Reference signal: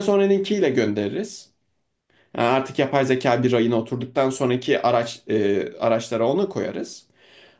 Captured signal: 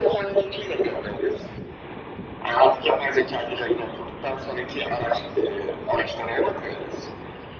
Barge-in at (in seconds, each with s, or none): none